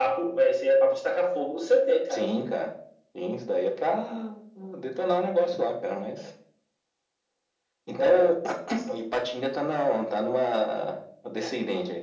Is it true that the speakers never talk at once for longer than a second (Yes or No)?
Yes